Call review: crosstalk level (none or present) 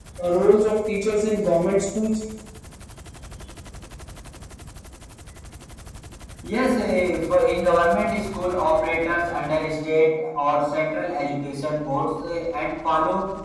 none